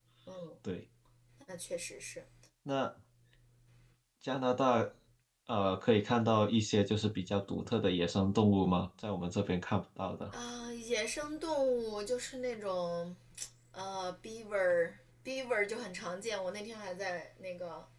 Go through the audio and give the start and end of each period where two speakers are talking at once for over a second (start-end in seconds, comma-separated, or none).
none